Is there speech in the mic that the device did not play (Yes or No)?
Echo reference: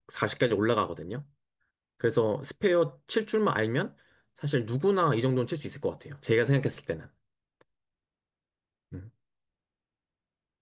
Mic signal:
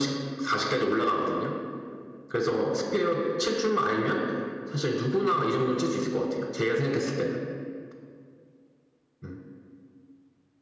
No